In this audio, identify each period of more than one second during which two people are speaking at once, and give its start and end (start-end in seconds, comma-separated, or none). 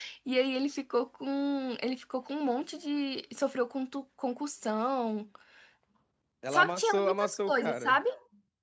6.5-8.0